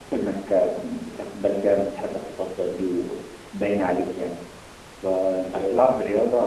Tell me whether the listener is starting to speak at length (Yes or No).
No